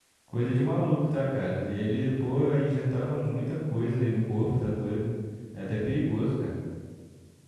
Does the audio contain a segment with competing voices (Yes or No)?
No